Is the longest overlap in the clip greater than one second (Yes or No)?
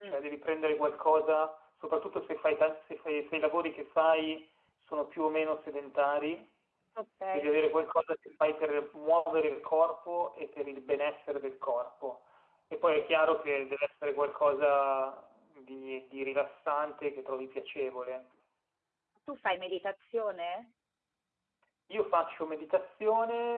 No